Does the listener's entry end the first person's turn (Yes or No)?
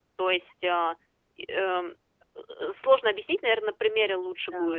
Yes